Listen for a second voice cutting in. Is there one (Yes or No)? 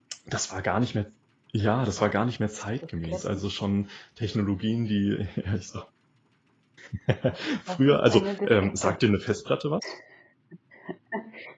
Yes